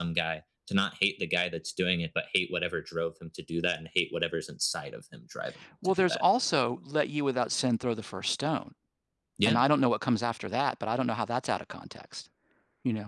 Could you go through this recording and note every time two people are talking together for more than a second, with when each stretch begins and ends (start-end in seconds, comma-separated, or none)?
none